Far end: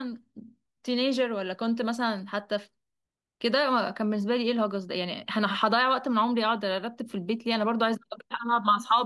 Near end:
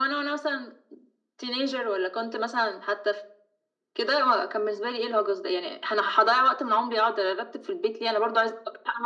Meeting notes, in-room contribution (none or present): none